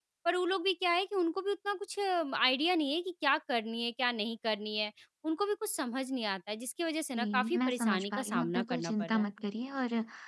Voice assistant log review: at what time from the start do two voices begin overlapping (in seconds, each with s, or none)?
7.1 s